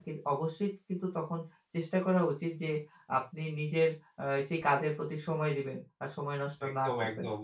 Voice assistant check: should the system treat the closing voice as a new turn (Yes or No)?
Yes